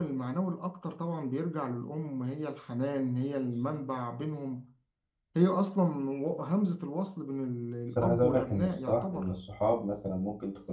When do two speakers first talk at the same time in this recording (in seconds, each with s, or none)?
8.0 s